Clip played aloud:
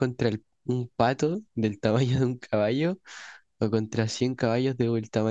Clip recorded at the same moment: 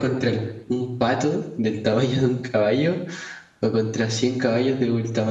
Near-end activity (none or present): none